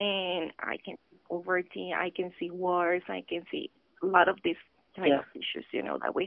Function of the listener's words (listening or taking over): listening